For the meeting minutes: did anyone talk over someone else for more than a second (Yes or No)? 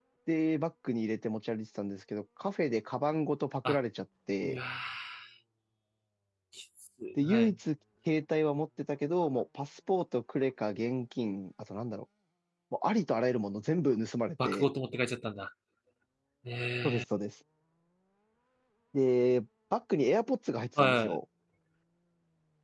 No